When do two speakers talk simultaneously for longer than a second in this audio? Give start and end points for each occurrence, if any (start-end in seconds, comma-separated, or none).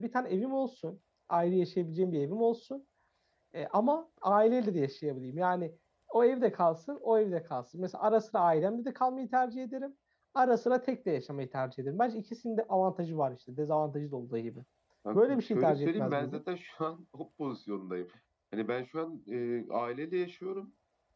15.1-16.4